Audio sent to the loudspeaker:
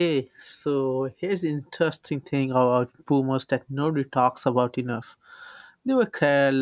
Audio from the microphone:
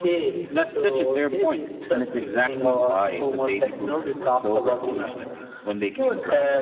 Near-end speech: present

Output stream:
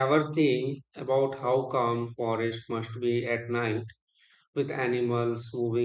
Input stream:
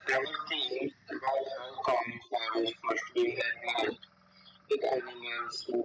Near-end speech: none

